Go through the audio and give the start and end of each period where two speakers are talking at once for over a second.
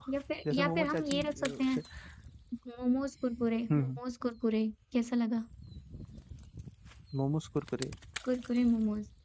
0.5-1.8

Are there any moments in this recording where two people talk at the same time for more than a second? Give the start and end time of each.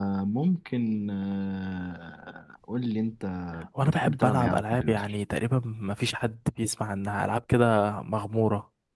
3.8-5.2

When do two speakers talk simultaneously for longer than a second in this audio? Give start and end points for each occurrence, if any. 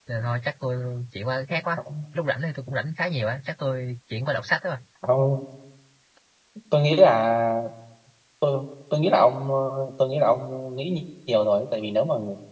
none

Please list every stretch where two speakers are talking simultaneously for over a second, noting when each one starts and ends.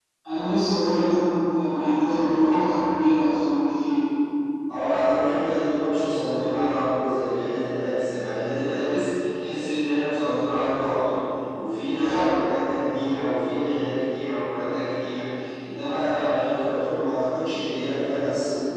none

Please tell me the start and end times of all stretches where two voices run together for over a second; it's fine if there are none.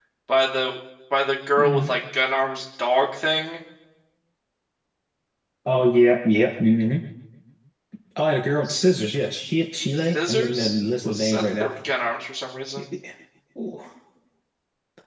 10.0-11.7

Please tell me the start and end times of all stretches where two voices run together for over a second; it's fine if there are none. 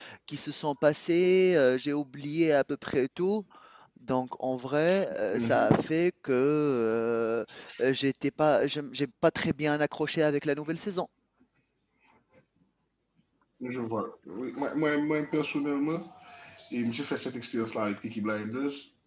none

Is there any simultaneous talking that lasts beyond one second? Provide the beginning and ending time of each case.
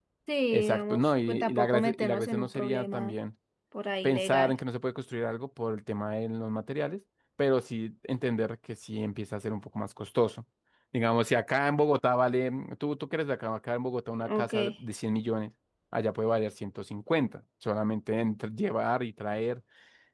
0.5-3.2

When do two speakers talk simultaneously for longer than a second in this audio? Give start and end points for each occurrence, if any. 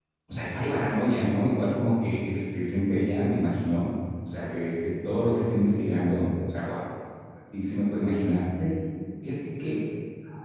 none

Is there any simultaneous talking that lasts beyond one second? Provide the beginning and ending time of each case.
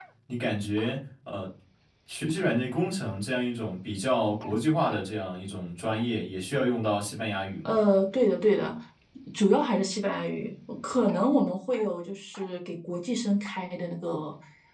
none

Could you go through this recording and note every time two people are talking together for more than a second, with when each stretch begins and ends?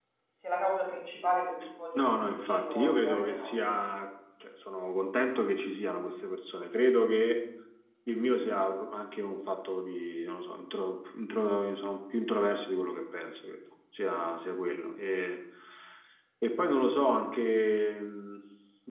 2.0-3.7

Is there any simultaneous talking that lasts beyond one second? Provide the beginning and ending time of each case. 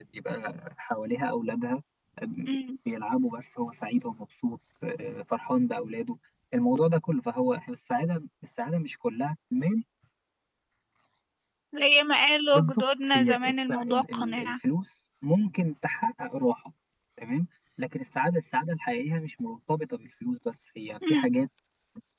12.5-14.5

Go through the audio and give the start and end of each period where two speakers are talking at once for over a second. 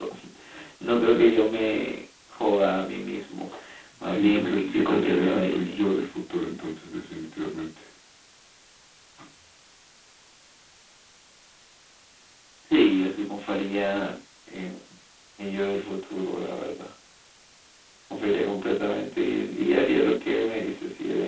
4.1-5.9

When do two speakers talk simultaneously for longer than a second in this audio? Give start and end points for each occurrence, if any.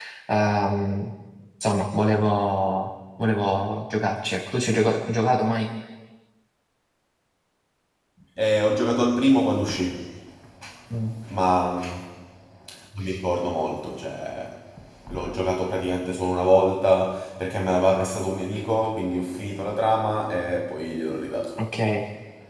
none

